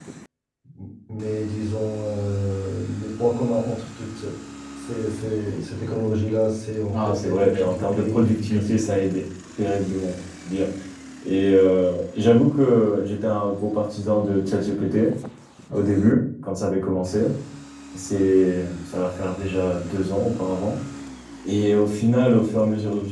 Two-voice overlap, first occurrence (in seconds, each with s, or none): 6.9 s